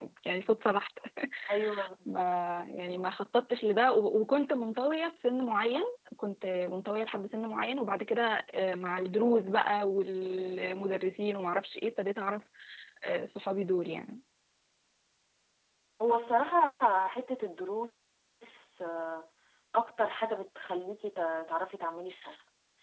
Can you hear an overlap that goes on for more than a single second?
No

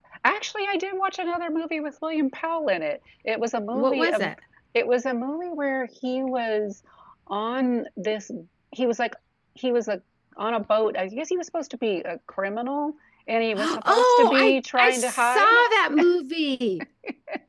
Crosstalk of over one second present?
Yes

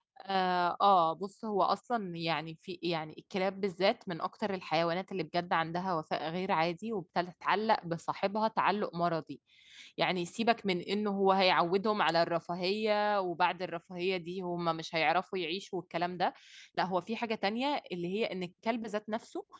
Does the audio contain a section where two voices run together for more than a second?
No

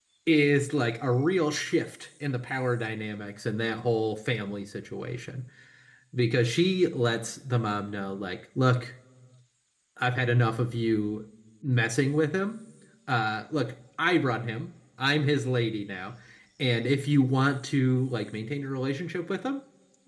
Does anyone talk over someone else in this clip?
No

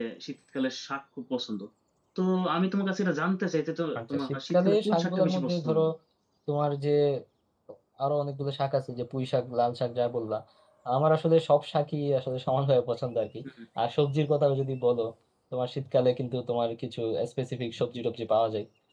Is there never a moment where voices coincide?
No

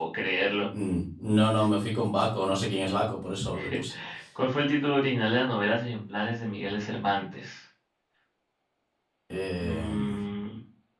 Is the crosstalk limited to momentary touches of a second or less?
Yes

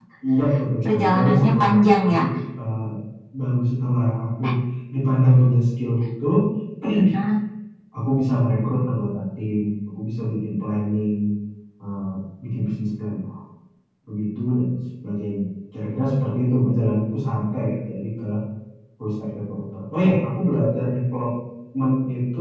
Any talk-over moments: Yes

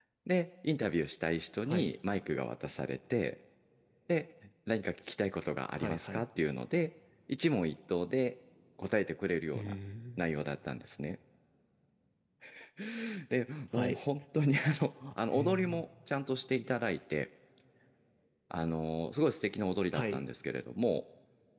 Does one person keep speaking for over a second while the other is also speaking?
No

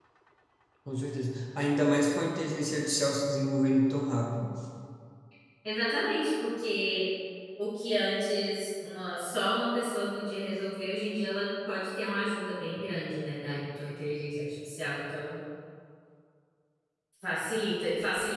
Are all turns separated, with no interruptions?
Yes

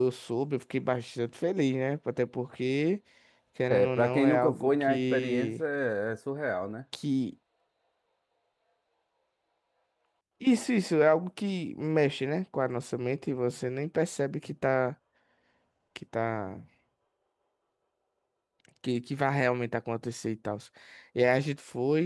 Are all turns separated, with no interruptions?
No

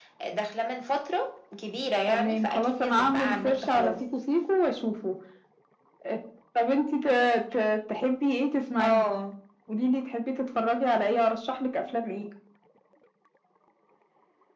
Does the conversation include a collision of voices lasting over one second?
Yes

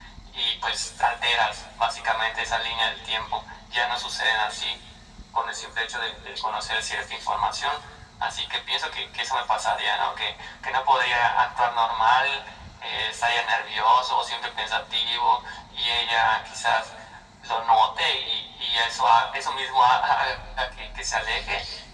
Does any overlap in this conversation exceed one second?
No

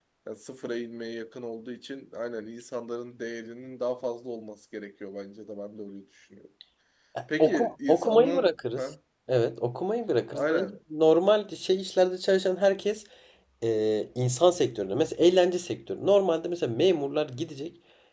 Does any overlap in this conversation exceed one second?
Yes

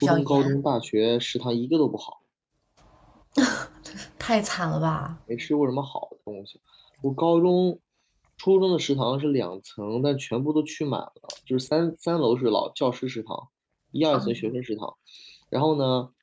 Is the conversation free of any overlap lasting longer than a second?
Yes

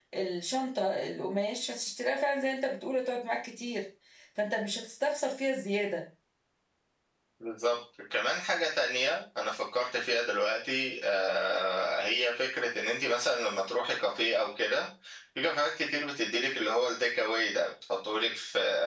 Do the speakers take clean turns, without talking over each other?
Yes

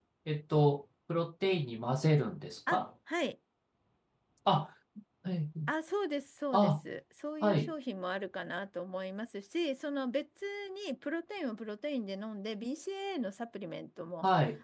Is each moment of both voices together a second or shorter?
Yes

